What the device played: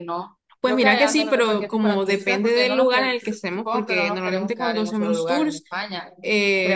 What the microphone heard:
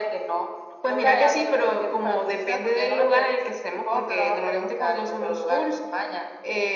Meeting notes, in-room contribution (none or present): none